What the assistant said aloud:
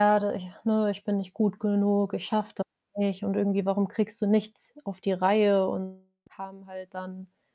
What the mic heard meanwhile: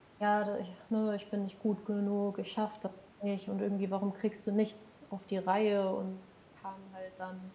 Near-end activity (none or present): none